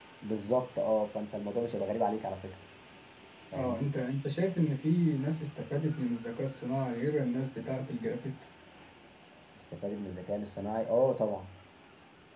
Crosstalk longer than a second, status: none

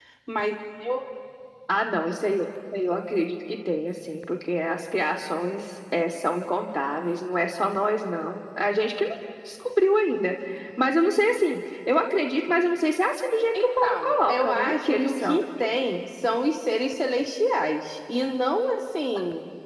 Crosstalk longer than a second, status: present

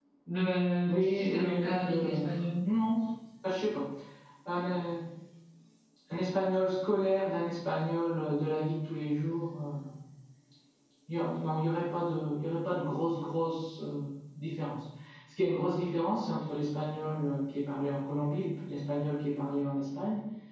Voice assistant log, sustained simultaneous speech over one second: present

